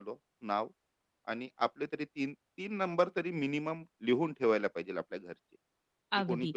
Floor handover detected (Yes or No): Yes